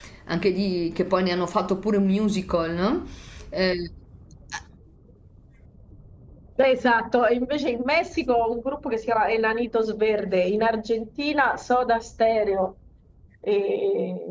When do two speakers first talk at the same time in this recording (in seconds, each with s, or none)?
none